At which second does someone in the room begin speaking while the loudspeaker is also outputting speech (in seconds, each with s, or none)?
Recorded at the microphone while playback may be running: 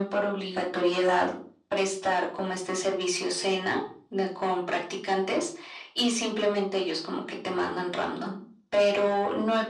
none